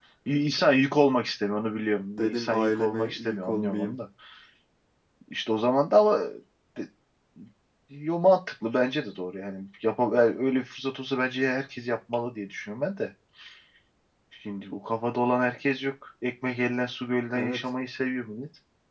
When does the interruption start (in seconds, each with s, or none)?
2.2 s